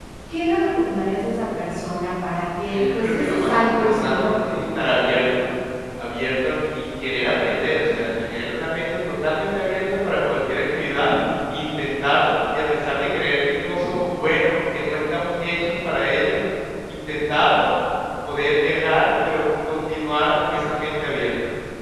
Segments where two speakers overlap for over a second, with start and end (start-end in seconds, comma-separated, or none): 2.7-4.9